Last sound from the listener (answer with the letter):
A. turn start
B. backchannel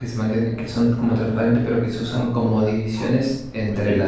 B